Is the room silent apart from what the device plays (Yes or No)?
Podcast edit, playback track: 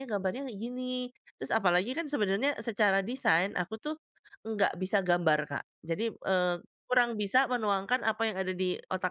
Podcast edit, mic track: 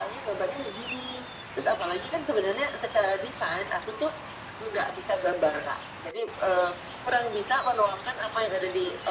Yes